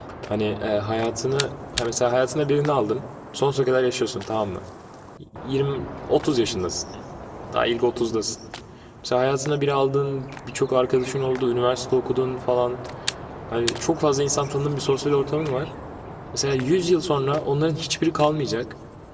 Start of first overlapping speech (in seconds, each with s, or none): none